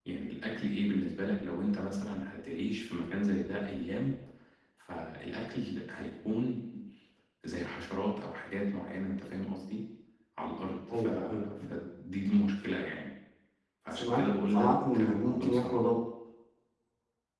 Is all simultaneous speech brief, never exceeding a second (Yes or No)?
No